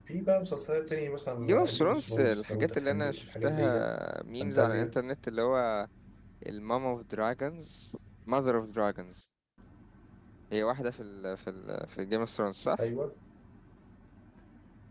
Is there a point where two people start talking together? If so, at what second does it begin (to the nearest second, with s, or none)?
1 s